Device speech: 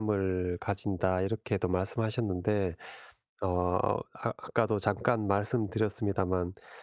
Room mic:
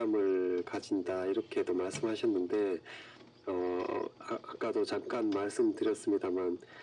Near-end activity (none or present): none